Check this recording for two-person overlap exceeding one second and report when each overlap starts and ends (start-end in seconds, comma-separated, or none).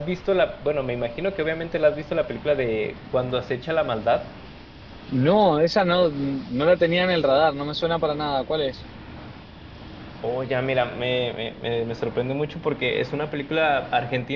none